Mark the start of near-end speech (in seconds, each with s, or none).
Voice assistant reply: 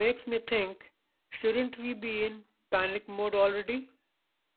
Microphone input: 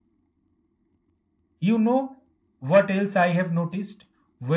1.6 s